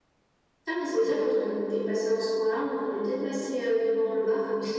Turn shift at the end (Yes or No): Yes